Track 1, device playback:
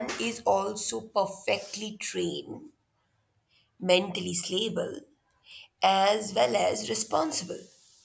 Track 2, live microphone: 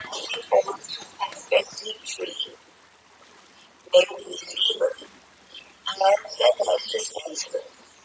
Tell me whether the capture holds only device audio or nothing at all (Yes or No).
Yes